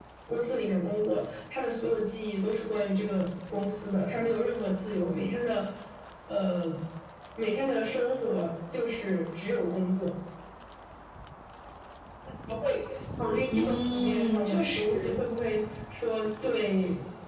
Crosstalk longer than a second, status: present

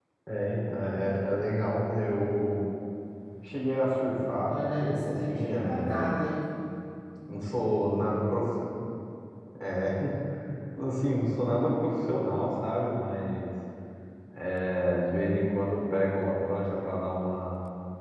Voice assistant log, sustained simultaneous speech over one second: present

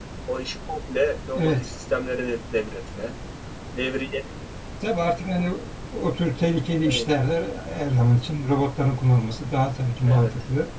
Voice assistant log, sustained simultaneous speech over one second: none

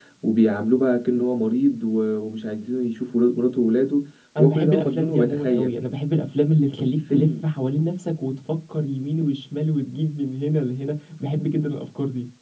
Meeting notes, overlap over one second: present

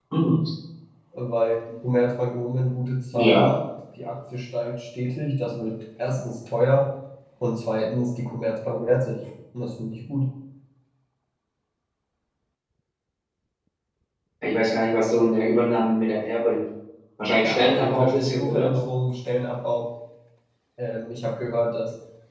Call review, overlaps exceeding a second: present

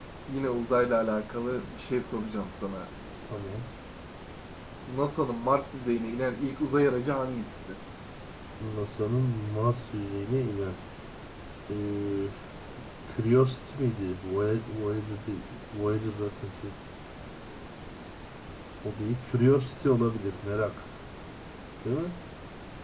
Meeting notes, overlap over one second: none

